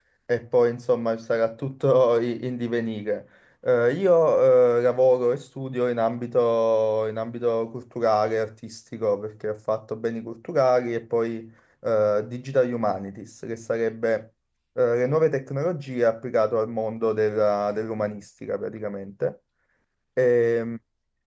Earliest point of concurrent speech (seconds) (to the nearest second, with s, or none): none